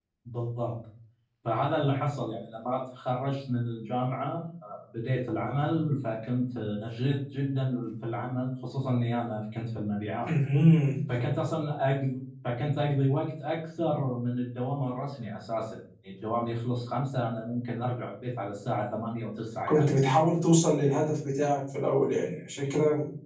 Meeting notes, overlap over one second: none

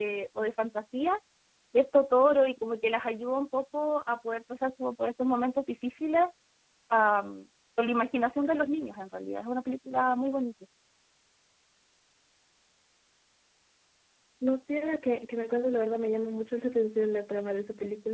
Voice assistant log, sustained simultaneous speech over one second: none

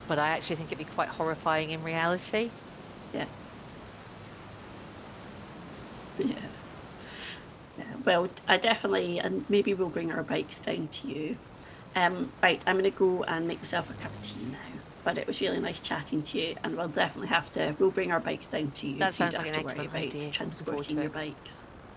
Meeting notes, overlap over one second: present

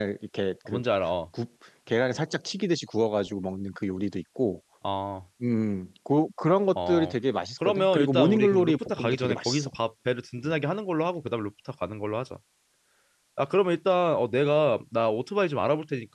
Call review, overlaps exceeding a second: present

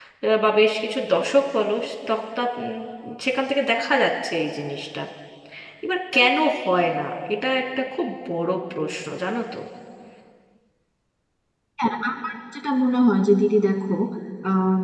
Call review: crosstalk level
none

